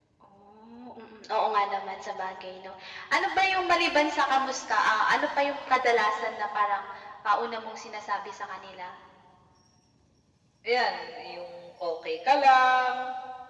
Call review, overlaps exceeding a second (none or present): none